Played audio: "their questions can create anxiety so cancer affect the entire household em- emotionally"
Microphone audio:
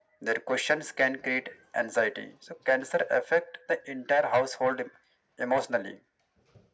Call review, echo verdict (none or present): present